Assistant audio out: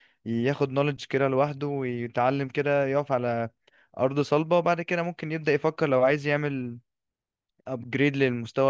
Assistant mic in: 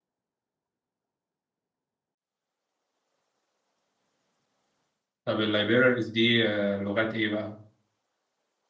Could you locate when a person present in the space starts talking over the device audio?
5 s

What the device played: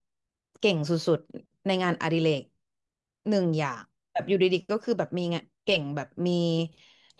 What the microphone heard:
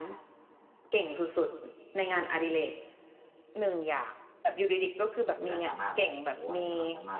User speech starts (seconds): 5 s

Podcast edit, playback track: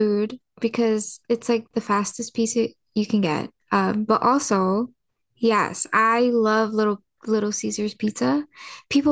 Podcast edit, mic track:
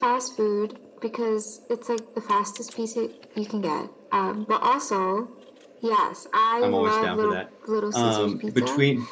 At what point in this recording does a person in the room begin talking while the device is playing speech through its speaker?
7 s

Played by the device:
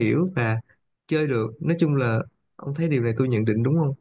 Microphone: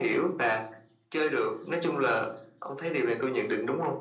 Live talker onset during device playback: none

